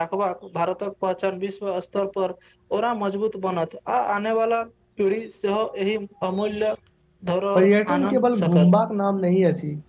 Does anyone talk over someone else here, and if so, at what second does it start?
8 s

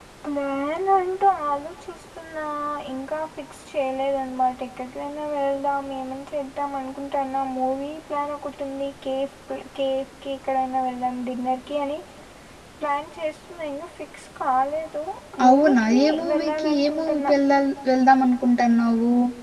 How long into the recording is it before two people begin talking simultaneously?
15 s

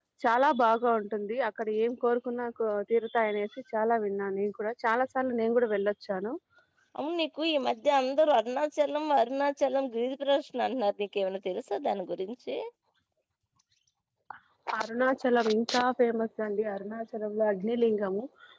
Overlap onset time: none

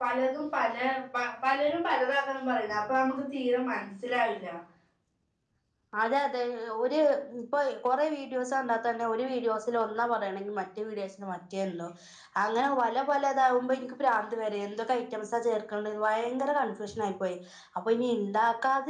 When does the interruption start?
none

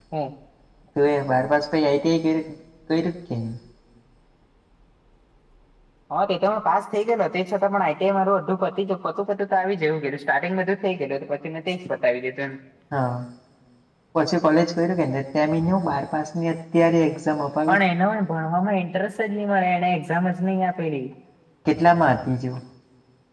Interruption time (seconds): none

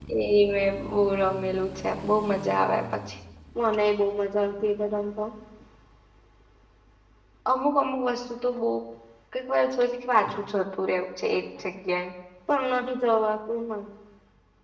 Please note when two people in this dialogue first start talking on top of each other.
none

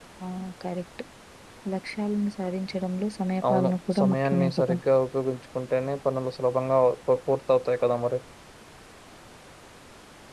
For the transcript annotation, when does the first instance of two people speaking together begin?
3 s

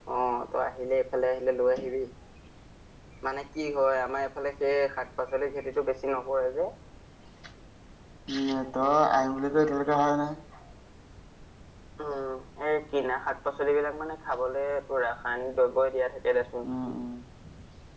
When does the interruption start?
none

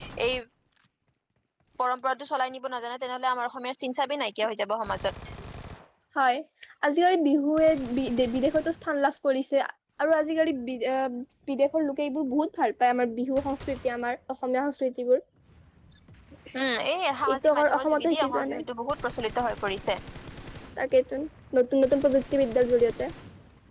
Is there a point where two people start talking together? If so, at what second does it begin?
17 s

